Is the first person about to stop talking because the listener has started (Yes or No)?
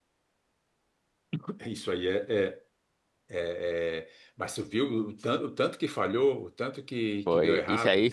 Yes